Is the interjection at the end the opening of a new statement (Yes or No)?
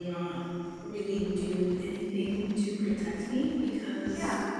No